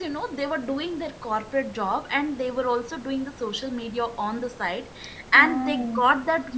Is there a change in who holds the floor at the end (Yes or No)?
No